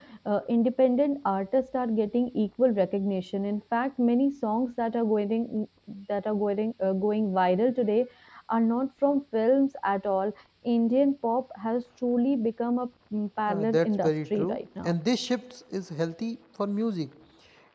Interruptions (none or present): present